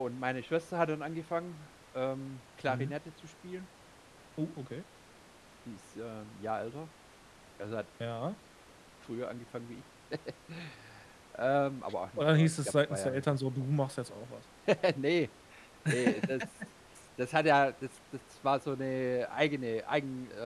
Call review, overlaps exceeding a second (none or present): present